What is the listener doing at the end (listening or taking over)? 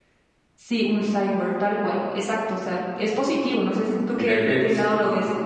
taking over